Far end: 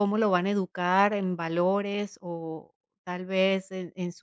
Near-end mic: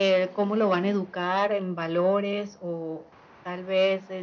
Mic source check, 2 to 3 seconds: echo only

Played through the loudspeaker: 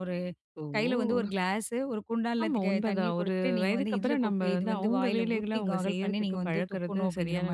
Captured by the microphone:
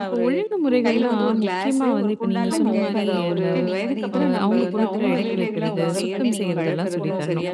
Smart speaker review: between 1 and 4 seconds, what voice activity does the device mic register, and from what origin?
both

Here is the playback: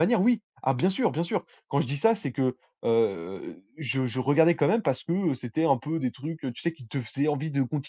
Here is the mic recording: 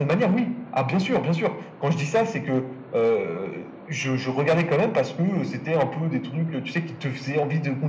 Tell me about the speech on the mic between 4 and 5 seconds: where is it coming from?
echo only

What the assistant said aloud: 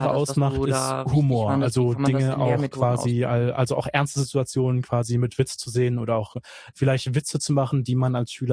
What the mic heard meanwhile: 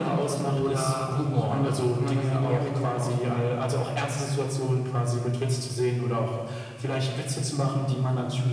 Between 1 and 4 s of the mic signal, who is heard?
echo only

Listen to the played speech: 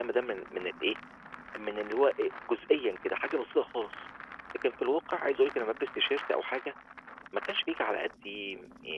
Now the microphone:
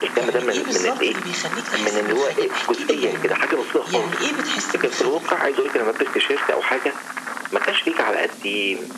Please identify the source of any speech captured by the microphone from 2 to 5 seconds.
both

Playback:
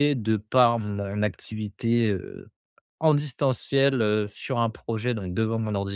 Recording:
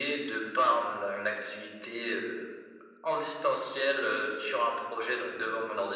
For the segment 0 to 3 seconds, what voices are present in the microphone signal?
echo only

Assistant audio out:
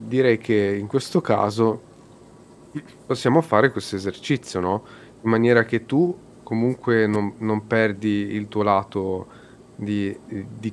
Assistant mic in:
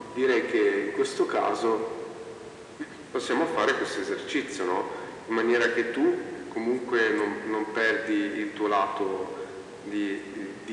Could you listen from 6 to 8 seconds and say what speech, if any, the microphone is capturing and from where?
echo only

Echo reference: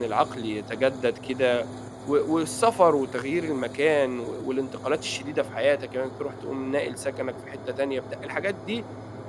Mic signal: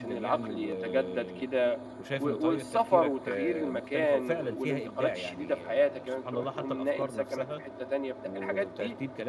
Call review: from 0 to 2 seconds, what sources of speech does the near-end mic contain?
both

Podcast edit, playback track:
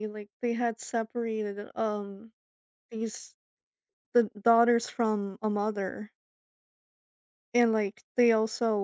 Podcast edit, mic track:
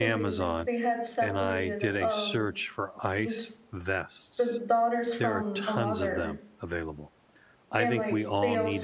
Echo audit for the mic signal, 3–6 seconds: both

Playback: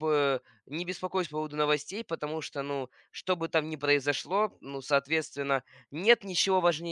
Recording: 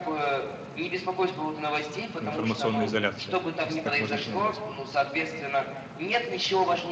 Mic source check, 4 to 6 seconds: both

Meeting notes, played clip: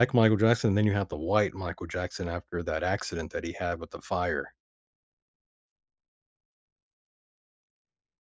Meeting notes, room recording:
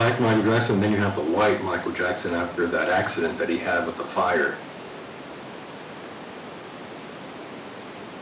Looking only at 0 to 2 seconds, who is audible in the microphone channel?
echo only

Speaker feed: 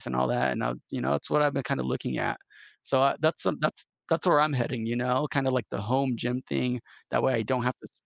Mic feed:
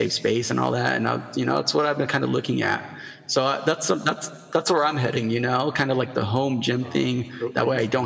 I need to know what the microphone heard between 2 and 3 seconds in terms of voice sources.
echo only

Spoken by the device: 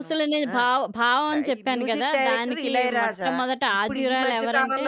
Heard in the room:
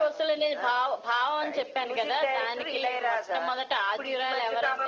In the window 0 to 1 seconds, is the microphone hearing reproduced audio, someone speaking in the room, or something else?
echo only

